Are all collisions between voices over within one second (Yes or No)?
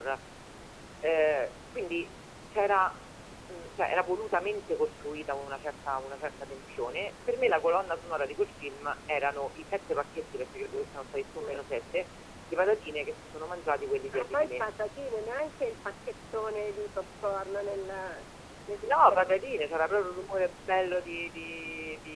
Yes